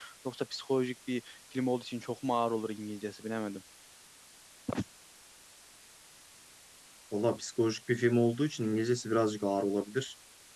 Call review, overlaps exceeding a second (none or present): none